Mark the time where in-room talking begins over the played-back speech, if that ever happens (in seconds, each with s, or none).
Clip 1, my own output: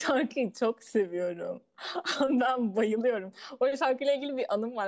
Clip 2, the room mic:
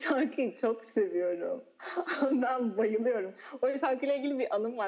none